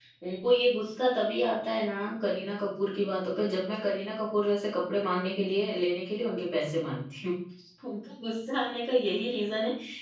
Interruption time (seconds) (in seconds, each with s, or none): none